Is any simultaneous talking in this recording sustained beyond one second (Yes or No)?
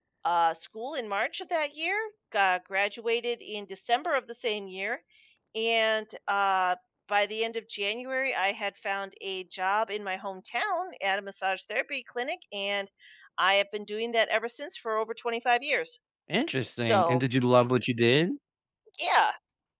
No